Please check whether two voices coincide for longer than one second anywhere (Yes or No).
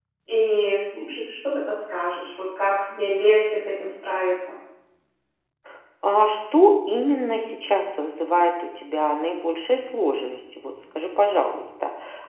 No